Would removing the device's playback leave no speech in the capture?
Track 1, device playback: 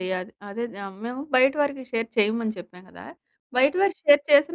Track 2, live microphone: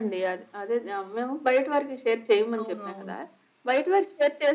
No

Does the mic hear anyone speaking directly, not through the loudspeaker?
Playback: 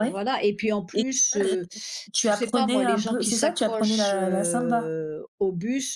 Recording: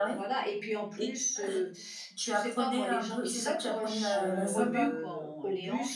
Yes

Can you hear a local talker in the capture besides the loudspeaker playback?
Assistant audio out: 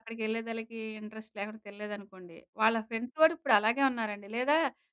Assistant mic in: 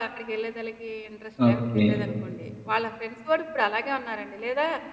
Yes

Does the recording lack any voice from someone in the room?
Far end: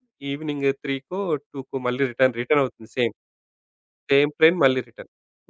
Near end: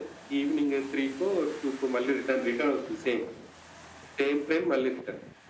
Yes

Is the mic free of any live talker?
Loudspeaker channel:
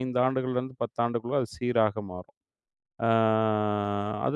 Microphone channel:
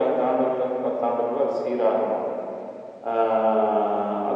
Yes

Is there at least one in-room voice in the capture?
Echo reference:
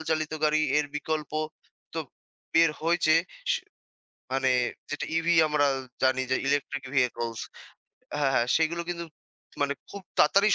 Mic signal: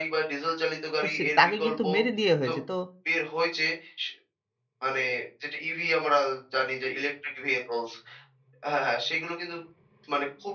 Yes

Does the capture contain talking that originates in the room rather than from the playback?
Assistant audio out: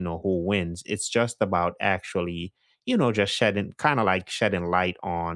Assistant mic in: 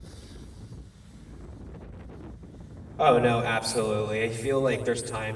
Yes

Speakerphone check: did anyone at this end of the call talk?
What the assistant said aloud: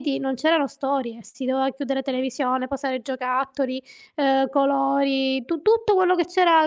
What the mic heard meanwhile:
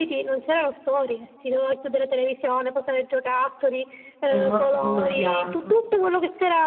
Yes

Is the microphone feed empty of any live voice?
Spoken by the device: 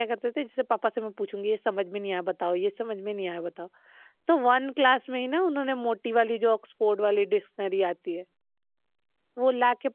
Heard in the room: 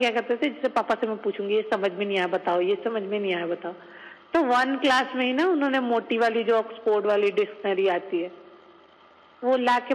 Yes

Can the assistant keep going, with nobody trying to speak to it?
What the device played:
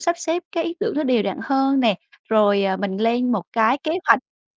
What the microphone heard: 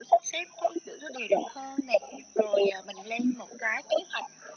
Yes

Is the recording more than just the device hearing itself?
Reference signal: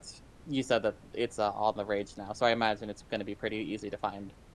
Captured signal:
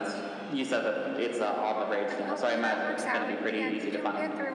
Yes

